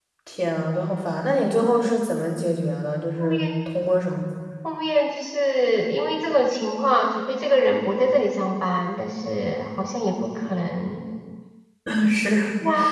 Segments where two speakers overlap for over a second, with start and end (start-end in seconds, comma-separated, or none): none